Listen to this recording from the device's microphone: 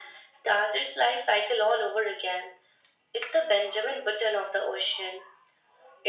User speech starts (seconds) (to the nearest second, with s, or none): none